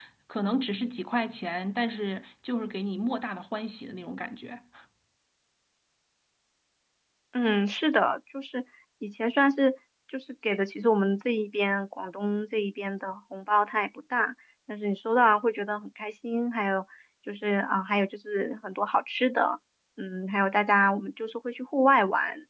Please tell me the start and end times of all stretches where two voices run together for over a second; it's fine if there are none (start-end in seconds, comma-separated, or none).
none